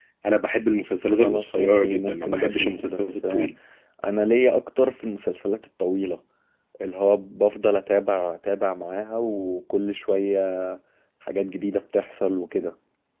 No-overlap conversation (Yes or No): No